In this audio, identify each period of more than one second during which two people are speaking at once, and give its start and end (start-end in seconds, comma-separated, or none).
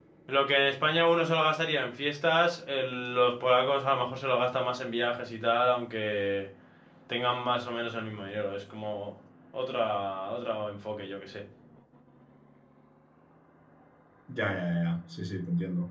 none